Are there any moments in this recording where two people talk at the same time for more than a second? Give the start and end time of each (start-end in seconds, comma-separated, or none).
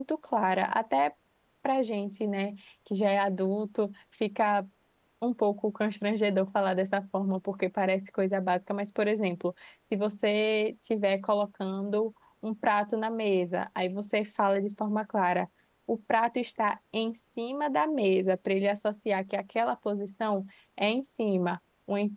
none